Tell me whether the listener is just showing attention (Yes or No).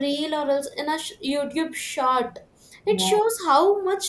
Yes